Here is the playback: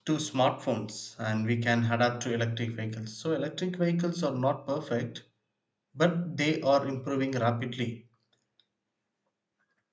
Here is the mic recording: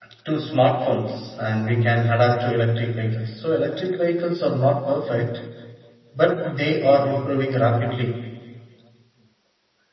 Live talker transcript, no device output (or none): none